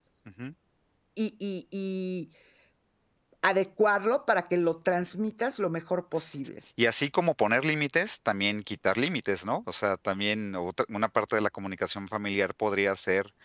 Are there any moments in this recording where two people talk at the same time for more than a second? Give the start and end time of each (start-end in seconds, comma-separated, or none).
none